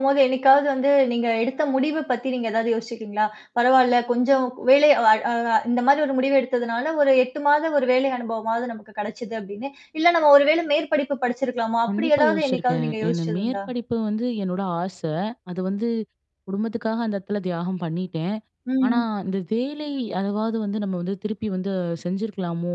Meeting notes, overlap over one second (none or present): present